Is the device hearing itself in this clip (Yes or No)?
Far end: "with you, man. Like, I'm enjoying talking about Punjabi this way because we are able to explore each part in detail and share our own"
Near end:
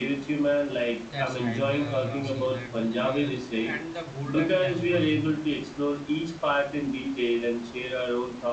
Yes